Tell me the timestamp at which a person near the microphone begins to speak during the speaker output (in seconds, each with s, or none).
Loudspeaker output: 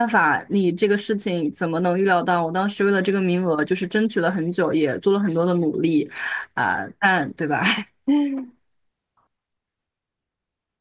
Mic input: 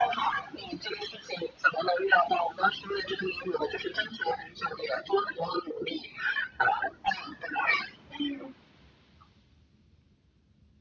none